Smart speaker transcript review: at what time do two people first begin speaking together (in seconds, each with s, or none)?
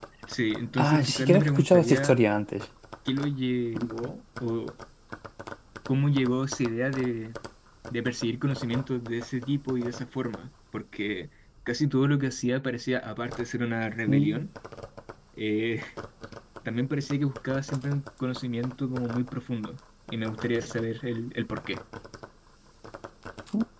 0.8 s